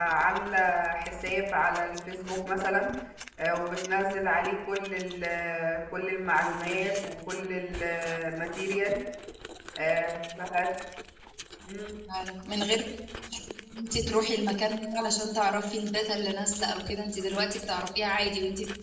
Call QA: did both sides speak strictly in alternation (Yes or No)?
Yes